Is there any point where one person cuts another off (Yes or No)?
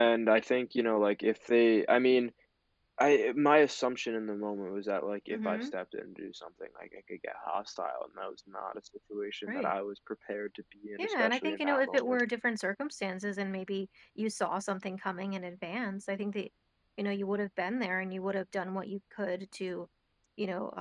Yes